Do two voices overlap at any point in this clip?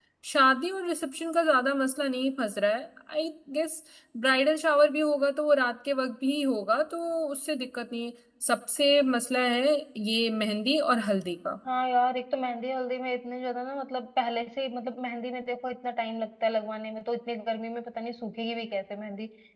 No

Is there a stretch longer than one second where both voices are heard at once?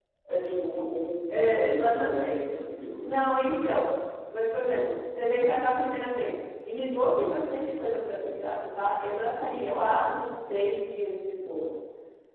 Yes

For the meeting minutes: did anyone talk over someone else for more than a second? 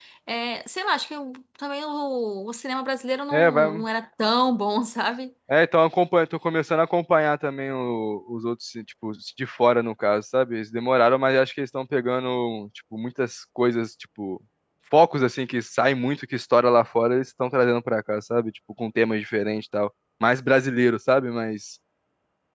No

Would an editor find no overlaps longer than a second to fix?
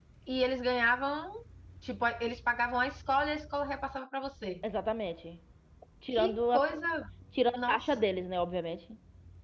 Yes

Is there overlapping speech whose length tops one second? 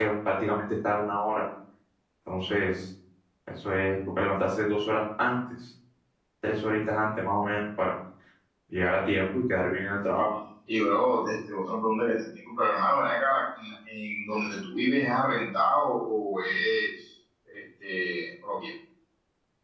No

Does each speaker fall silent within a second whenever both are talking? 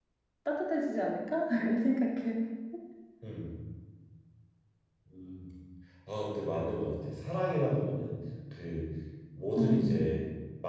Yes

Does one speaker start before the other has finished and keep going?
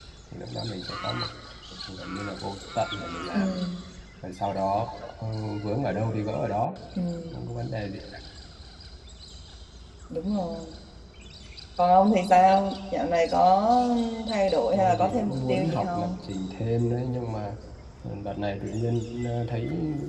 Yes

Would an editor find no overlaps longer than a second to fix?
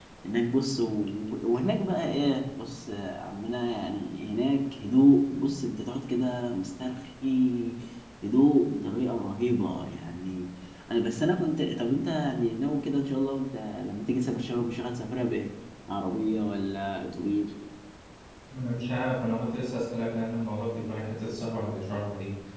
Yes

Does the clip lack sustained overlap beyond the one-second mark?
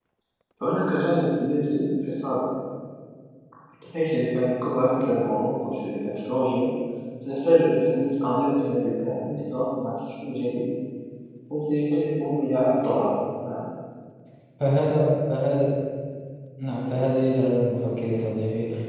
Yes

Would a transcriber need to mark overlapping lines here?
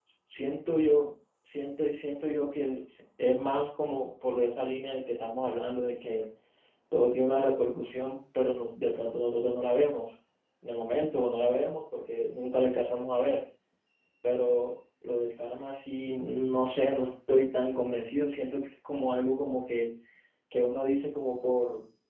No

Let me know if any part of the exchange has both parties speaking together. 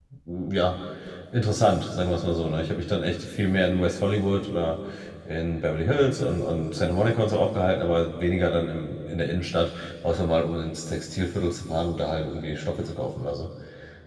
No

